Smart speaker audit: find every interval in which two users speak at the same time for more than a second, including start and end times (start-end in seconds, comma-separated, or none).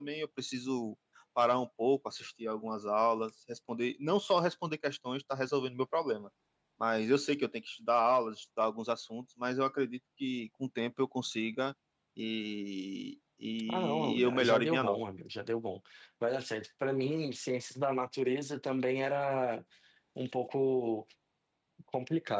13.7-15.0